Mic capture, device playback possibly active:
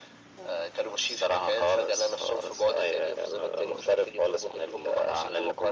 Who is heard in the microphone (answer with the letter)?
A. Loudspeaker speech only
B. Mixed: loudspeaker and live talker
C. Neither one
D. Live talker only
B